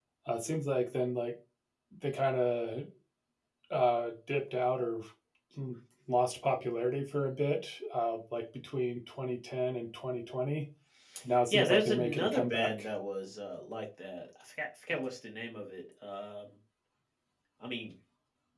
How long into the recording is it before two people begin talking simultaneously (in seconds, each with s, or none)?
11.5 s